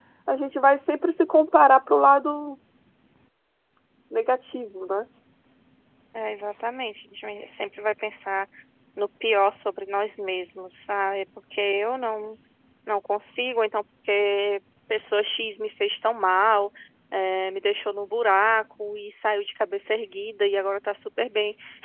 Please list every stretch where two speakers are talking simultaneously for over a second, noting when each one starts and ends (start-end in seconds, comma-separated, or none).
none